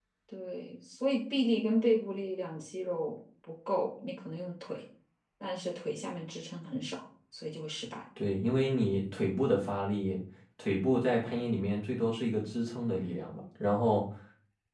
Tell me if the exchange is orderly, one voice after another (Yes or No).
Yes